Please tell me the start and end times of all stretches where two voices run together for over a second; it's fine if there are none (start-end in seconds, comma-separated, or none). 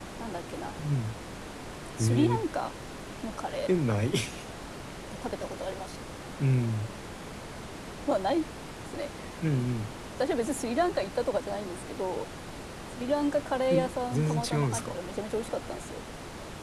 13.7-15.0